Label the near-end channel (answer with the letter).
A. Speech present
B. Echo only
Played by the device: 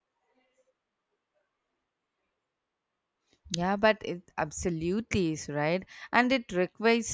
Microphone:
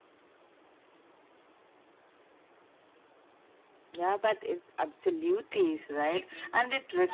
A